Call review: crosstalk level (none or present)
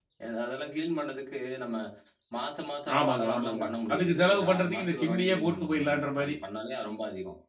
present